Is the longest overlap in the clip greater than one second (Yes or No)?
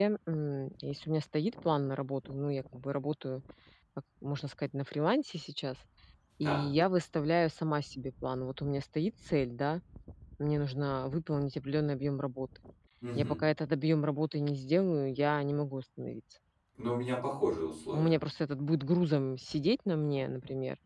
No